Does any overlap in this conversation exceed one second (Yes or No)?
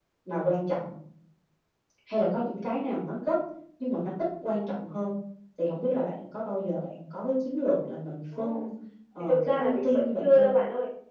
Yes